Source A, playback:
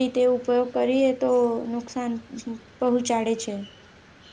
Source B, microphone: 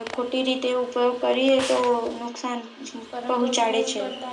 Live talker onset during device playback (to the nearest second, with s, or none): 3 s